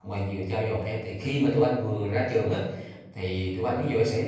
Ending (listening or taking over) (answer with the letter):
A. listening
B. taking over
A